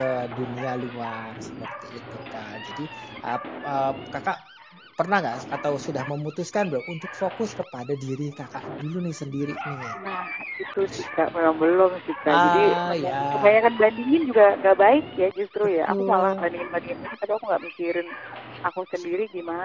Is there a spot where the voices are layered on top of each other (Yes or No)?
Yes